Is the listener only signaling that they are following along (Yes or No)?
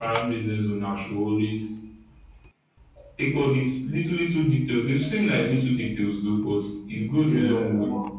Yes